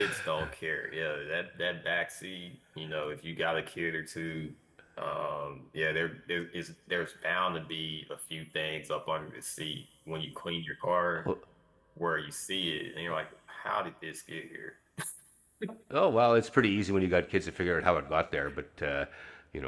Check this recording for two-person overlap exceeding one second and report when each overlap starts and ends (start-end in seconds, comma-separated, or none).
none